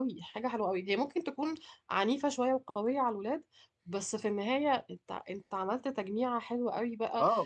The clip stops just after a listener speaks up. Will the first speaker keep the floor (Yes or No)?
No